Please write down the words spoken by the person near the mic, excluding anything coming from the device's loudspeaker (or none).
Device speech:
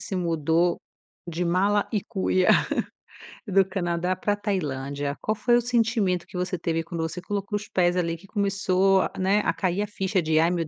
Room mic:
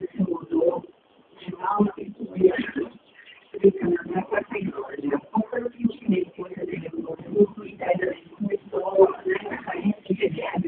none